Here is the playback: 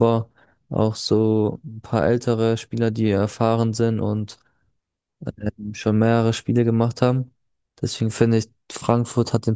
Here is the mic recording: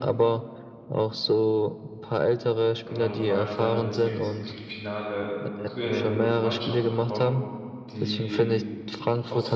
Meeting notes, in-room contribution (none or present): present